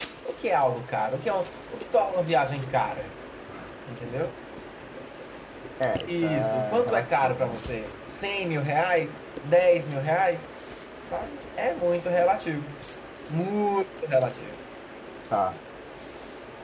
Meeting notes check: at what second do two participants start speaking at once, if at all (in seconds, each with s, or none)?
6.1 s